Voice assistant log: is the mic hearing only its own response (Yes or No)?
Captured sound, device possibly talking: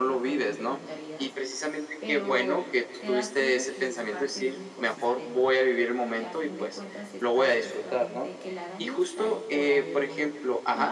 No